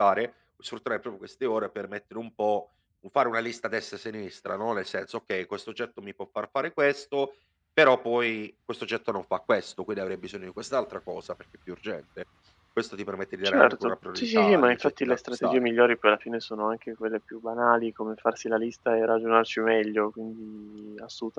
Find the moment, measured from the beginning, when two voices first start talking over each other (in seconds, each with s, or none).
13.4 s